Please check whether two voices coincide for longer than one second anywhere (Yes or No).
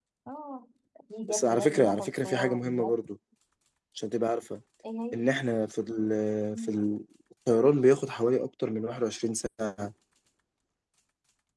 Yes